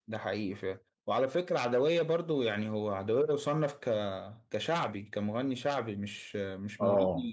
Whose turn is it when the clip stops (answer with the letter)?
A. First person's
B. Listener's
A